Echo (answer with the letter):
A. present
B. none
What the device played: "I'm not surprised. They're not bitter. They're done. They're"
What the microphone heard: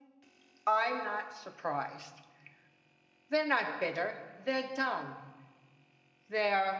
A